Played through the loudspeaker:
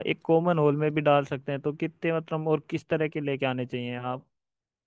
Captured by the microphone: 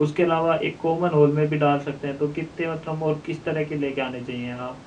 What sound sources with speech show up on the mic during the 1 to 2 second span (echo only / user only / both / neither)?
echo only